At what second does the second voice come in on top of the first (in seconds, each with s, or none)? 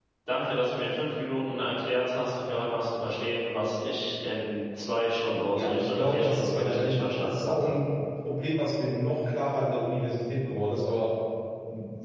5.4 s